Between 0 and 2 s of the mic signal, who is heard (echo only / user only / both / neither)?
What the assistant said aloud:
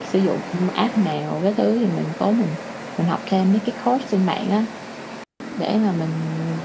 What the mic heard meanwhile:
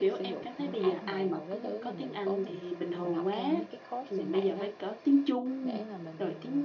both